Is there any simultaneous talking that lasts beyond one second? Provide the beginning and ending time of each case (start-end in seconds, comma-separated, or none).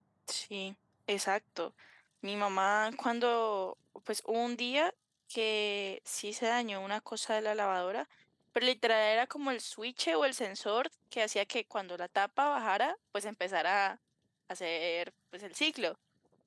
none